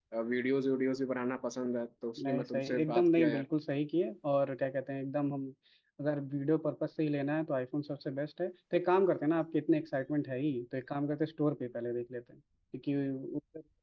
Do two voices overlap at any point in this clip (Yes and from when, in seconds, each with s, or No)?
Yes, from 2.2 s